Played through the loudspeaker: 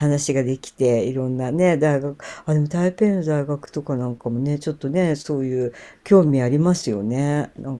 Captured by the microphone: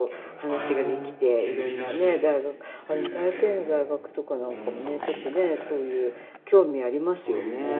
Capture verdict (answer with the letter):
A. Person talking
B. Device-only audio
A